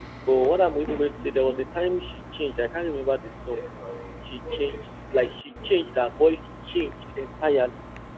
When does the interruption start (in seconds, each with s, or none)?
none